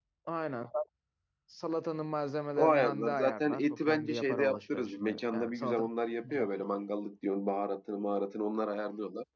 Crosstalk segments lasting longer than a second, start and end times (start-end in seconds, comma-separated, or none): 2.6-5.8